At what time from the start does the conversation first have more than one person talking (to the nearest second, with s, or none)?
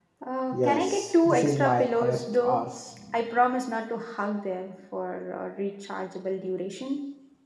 1 s